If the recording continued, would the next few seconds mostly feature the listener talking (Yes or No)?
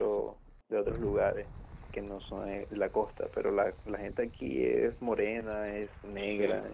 No